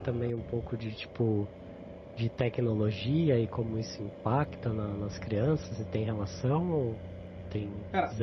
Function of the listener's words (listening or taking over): taking over